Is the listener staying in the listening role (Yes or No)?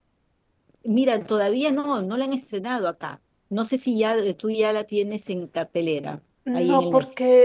No